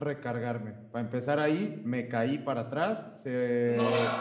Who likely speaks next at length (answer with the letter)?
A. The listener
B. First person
B